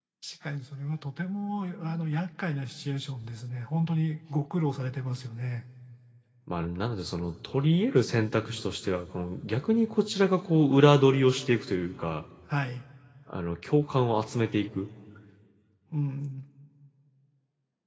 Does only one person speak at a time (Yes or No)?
Yes